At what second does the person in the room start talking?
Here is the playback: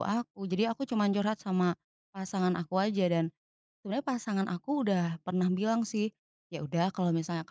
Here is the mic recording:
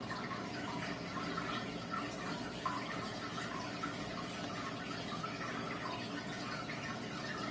none

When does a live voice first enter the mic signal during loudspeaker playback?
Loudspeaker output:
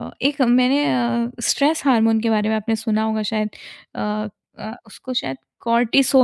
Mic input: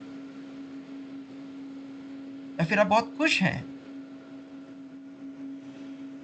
2.6 s

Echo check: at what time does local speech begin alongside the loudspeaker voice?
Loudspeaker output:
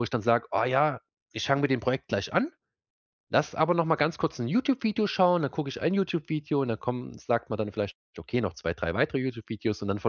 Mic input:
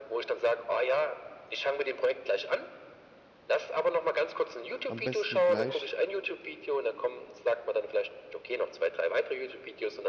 4.8 s

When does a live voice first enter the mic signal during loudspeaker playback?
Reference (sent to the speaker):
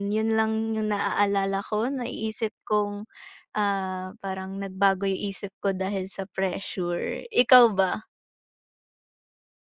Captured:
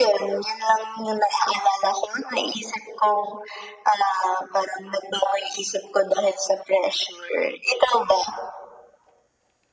none

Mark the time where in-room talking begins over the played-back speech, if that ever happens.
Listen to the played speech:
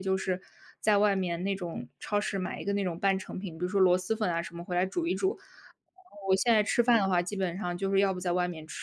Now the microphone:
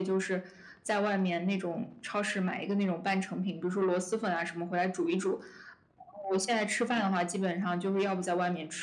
none

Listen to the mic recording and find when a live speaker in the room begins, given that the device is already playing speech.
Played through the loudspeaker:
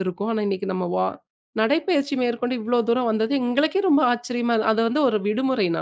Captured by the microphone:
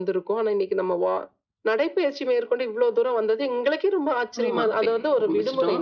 4.4 s

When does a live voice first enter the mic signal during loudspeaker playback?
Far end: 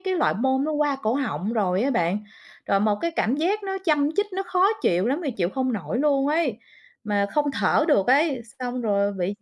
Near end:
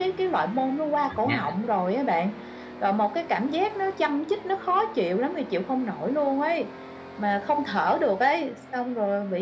1.0 s

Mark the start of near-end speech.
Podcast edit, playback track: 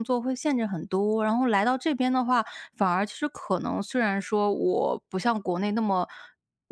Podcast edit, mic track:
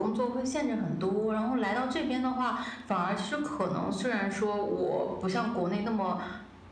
none

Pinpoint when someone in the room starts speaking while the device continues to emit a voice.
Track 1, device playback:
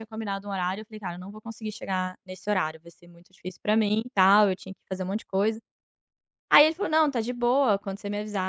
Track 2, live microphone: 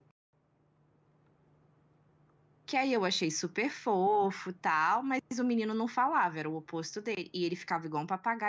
2.7 s

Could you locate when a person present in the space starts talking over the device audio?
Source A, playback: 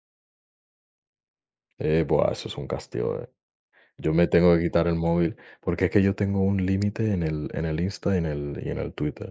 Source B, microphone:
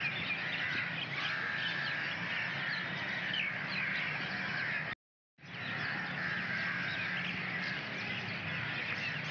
none

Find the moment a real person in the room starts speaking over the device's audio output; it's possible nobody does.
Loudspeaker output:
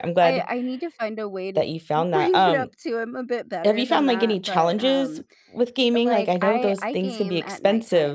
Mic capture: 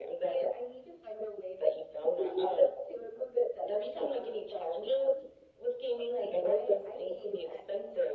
none

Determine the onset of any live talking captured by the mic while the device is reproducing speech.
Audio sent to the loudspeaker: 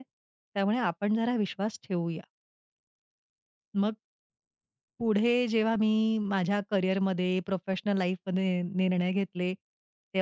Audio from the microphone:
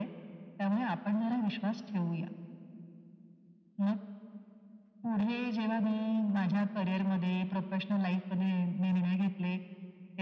none

